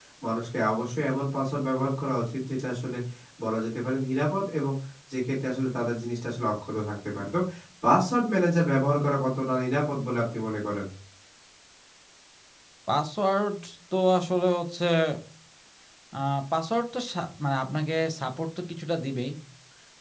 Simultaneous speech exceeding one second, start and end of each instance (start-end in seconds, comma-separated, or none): none